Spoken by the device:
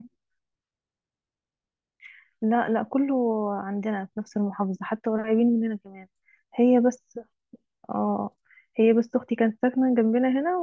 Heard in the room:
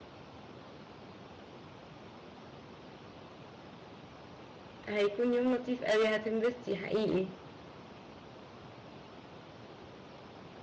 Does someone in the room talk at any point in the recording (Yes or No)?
Yes